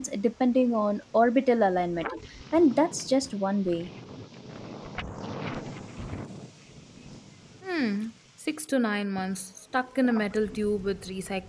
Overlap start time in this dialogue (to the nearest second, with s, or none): none